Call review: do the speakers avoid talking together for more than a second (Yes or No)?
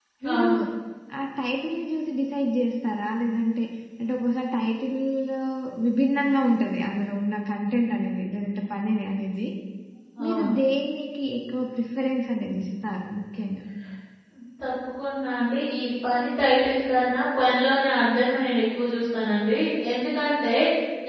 Yes